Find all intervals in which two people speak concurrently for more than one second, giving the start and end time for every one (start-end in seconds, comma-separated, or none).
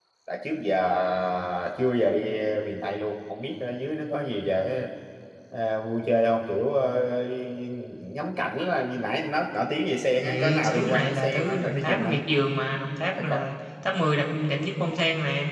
10.2-12.2